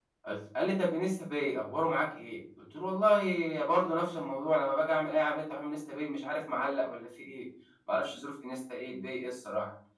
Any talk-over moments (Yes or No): No